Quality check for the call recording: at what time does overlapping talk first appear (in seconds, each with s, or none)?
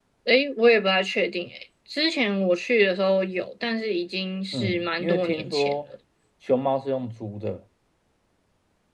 4.5 s